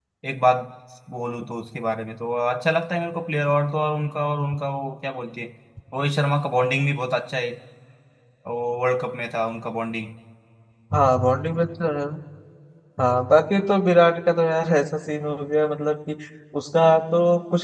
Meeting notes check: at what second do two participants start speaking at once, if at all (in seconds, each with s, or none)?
none